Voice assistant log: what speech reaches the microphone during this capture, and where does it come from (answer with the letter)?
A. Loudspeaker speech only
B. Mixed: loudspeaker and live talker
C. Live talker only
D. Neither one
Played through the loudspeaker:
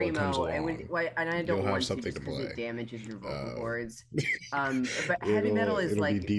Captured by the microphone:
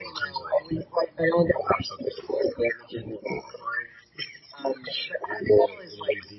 A